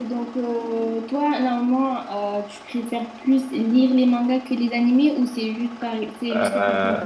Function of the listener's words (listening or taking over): taking over